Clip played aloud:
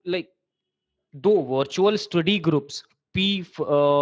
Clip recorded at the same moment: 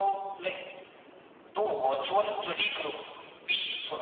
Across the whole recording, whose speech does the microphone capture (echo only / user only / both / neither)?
echo only